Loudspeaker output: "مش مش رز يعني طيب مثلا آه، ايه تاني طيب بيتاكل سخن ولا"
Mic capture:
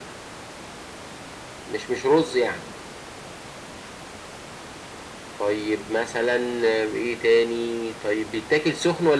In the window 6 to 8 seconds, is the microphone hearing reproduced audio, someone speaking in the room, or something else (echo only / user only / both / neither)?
echo only